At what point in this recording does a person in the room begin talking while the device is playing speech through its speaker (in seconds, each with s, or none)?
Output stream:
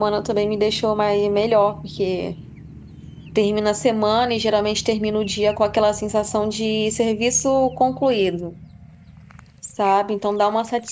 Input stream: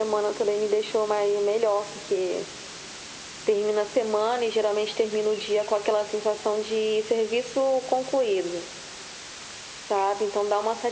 none